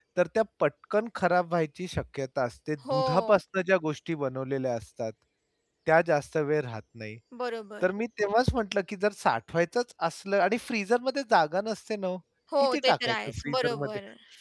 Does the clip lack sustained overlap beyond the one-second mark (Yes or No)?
No